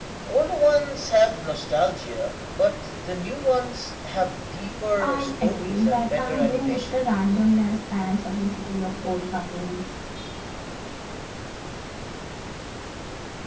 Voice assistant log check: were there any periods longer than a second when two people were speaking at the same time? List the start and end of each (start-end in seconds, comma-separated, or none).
5.0-7.0